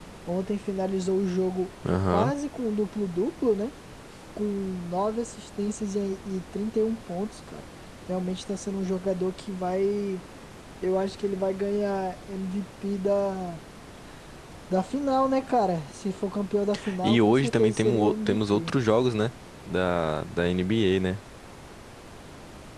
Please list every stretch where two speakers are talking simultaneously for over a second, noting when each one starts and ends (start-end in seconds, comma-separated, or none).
17.0-18.7